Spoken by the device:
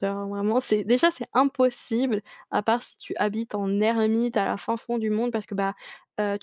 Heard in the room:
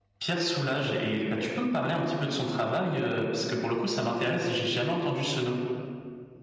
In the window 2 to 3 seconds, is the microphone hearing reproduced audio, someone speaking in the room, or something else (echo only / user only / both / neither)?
user only